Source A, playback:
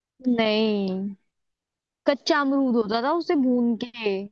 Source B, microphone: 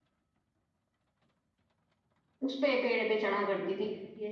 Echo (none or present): none